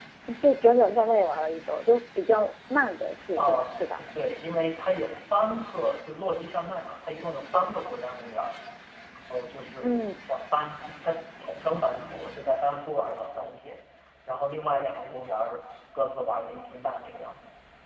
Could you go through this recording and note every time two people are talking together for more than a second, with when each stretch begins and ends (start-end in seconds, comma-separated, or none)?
none